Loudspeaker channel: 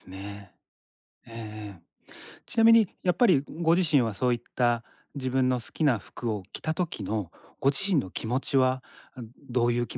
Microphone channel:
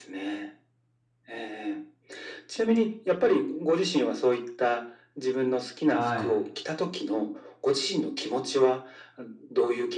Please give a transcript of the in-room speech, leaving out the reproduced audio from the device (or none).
はい。